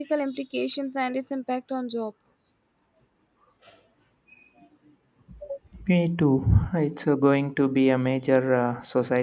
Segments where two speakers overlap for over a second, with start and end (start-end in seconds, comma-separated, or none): none